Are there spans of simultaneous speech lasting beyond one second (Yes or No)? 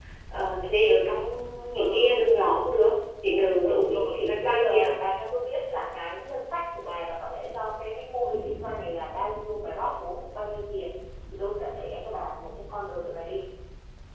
Yes